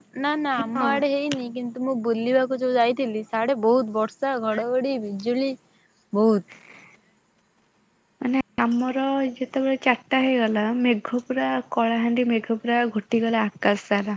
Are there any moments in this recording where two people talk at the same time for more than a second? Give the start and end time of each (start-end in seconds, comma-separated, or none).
none